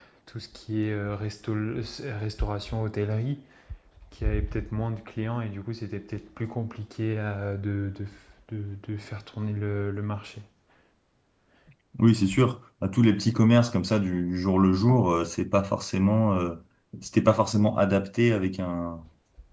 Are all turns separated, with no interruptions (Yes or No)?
Yes